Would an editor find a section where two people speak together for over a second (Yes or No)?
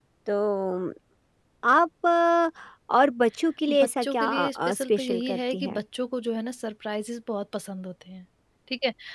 Yes